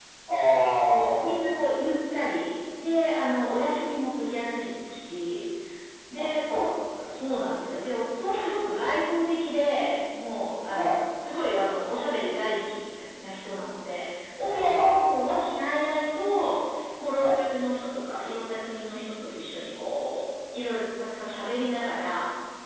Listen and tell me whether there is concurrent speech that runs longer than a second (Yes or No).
Yes